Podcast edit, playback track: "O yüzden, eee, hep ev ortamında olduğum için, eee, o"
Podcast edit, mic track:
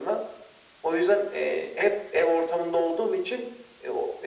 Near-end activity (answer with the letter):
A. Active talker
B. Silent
B